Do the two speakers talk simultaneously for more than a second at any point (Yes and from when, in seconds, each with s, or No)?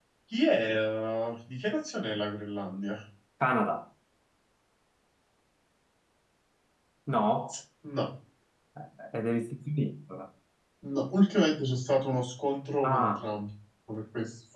No